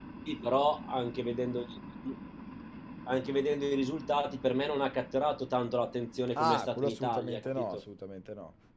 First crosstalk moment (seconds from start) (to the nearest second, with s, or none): 6 s